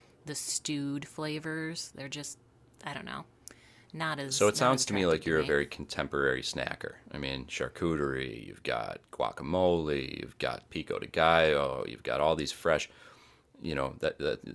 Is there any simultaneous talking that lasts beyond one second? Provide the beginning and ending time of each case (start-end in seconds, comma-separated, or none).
4.3-5.6